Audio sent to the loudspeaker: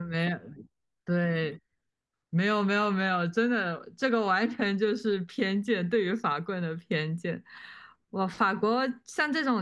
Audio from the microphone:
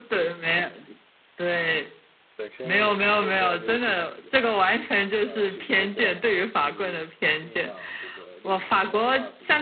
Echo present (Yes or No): Yes